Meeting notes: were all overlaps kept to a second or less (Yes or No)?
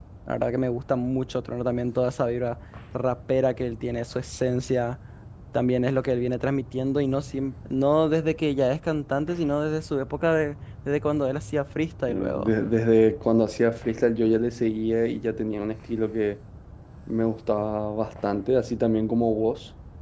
Yes